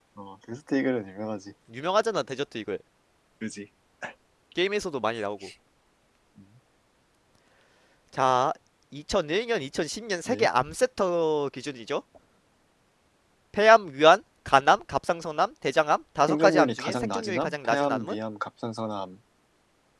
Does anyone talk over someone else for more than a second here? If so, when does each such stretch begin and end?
16.3-18.2

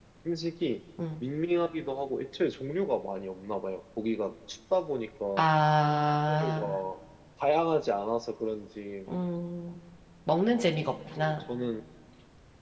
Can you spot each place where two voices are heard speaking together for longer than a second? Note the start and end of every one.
none

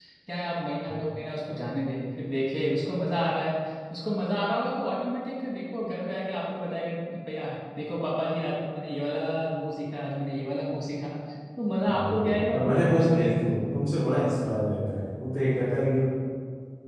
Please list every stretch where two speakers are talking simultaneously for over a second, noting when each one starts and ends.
11.9-13.4

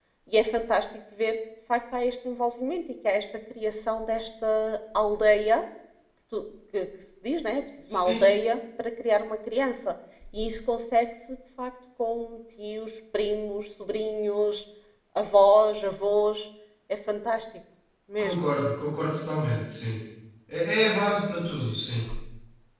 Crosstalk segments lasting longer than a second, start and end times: none

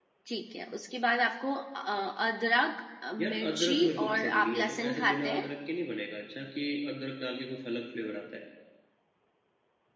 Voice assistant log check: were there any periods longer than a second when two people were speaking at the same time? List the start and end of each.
3.2-5.5

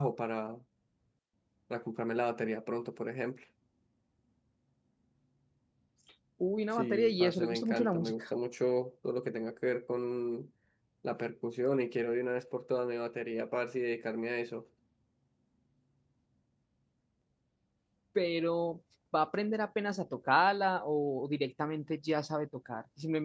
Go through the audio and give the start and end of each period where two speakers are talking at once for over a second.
6.8-8.2

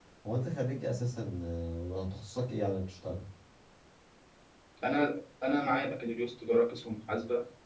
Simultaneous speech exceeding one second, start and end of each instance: none

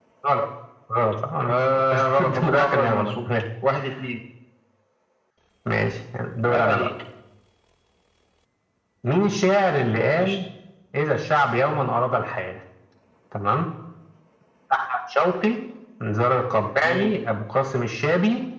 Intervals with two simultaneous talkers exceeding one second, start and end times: 1.5-3.1

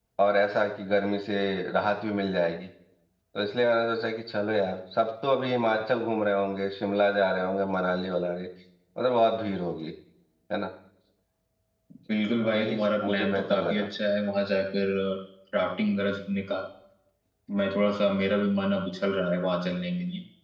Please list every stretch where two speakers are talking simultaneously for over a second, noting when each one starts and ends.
12.5-13.9

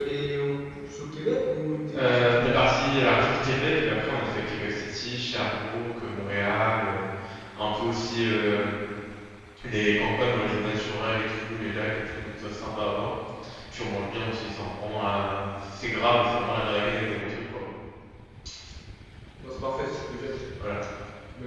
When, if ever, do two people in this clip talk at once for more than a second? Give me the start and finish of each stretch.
none

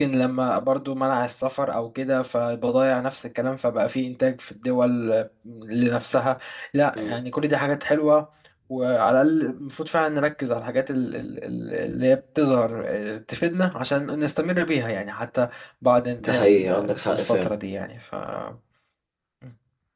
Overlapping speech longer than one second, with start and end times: 16.2-17.5

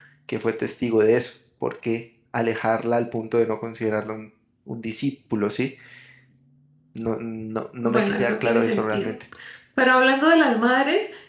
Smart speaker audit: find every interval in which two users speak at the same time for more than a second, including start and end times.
7.8-9.1

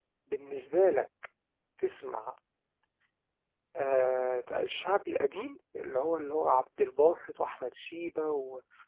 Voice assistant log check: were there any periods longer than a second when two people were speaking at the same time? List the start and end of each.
none

